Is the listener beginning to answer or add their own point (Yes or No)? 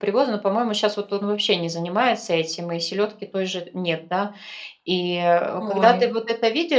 No